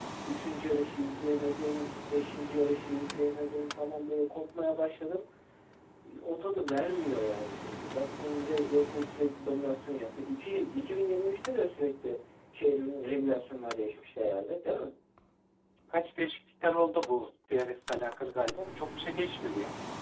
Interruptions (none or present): none